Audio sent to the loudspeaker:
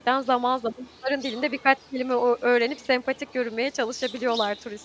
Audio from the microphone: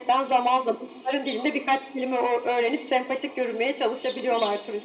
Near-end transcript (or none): none